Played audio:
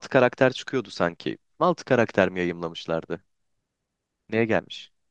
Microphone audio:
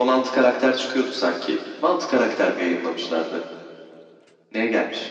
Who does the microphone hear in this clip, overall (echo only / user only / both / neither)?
echo only